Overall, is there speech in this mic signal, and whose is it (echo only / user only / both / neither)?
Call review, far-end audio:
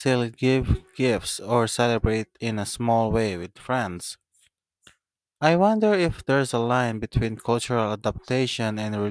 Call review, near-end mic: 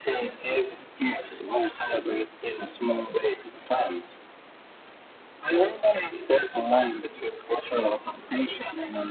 echo only